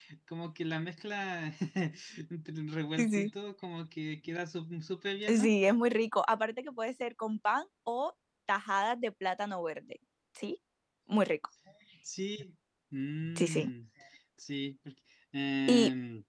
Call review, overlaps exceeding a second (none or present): none